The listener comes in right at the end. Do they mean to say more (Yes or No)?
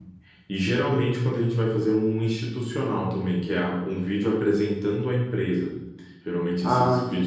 No